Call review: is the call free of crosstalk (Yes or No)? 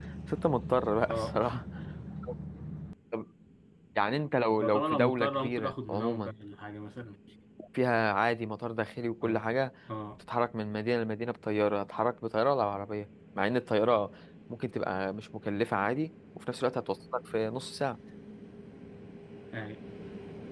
No